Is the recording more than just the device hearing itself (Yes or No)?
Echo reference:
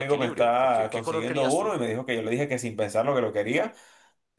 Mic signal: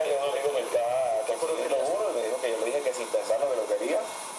No